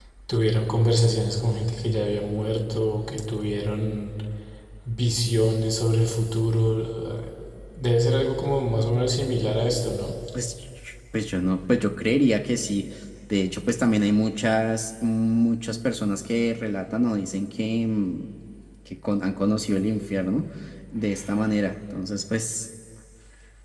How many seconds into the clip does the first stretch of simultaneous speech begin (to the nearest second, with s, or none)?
none